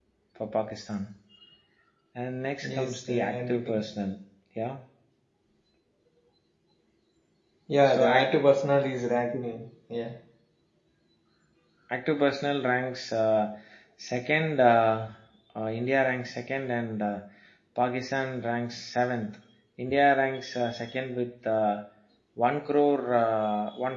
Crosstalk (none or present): present